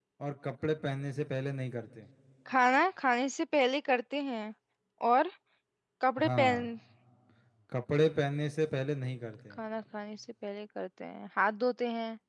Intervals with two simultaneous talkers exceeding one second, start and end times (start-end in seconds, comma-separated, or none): none